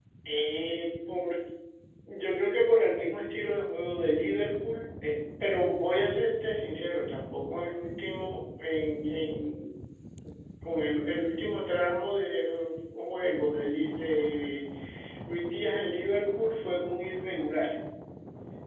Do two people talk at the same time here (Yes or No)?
No